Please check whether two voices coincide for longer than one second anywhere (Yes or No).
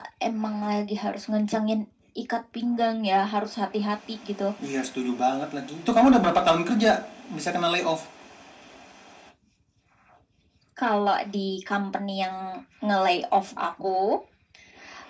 No